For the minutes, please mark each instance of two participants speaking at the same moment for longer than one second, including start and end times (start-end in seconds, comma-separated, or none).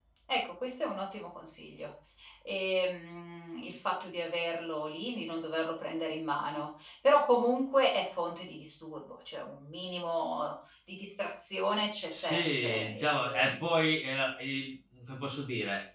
12.1-13.5